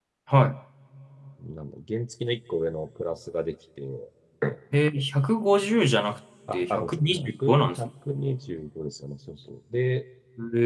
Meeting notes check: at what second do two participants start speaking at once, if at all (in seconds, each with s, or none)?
6.5 s